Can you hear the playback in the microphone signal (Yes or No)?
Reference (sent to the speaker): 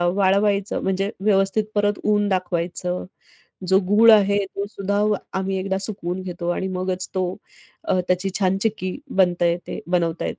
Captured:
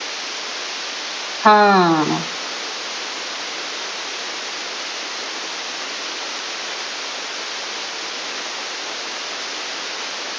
No